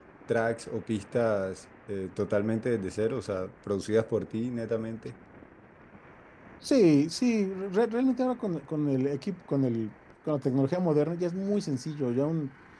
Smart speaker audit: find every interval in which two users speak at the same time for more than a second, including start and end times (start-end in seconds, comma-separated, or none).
none